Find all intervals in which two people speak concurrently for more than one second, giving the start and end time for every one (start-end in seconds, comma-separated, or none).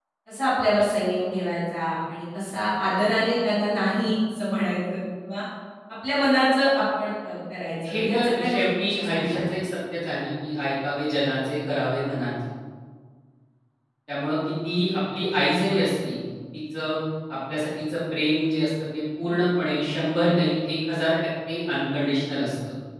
7.8-9.4